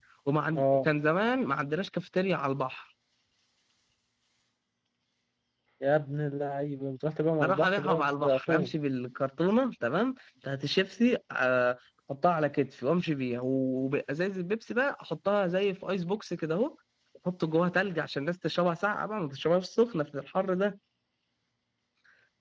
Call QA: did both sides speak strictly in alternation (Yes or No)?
No